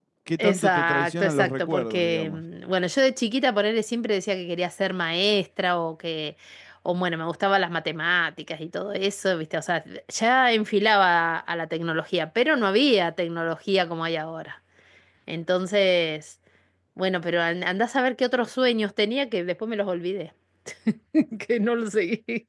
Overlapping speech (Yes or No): Yes